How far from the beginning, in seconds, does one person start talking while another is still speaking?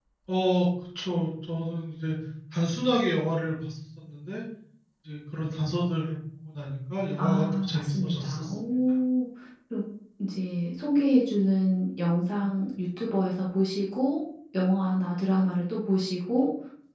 7 s

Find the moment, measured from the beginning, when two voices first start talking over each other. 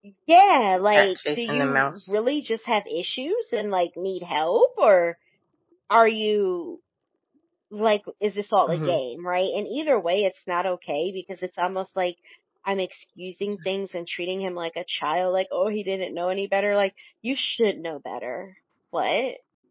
1 s

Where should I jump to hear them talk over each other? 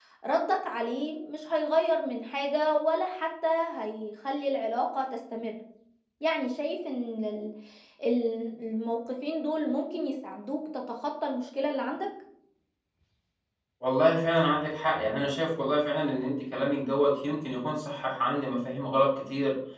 none

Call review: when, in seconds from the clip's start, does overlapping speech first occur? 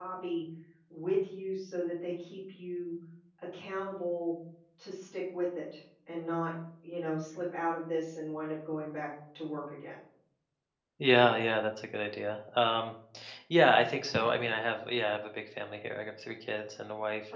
none

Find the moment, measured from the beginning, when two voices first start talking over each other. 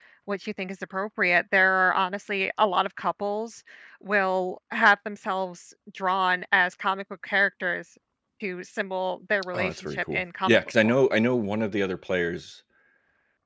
10 s

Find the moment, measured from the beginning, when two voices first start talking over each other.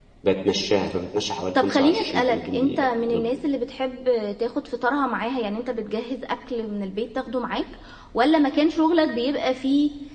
2 s

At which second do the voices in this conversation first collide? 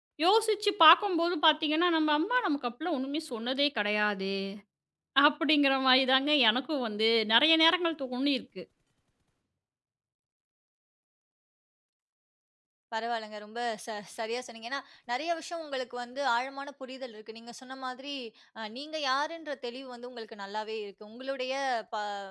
none

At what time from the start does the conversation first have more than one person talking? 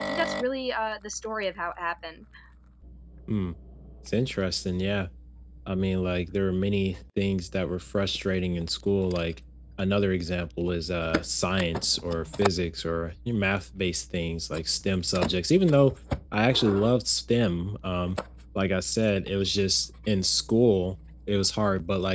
none

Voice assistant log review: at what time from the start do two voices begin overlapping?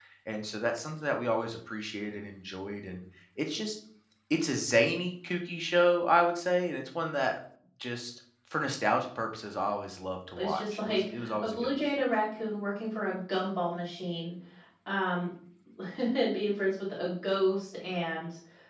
10 s

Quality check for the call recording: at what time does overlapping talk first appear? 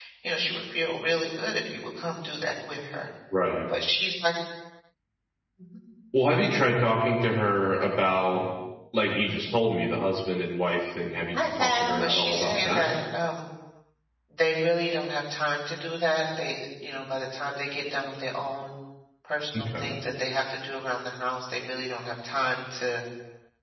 12 s

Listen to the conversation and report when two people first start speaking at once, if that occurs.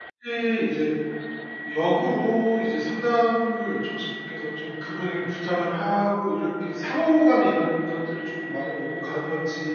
none

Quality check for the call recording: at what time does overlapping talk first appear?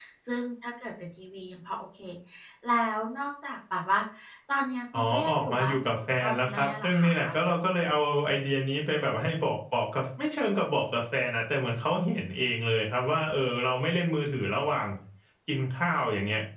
5 s

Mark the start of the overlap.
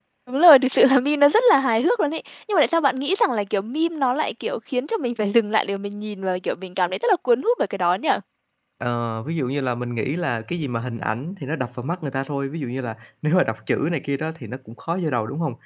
none

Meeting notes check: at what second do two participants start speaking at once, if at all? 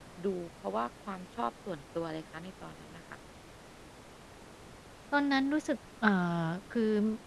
none

